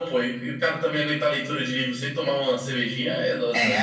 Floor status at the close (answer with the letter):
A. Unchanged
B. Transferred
B